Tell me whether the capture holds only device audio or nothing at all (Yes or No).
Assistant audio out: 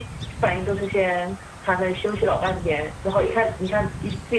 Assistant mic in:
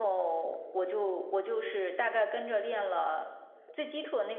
No